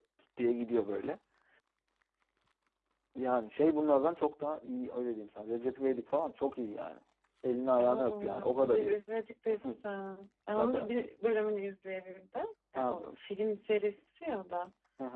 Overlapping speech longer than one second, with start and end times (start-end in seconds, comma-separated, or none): 7.8-9.0